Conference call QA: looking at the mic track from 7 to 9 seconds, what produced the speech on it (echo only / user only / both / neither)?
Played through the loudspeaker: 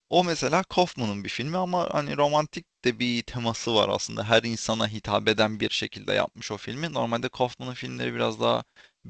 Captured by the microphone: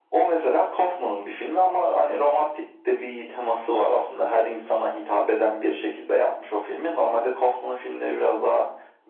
echo only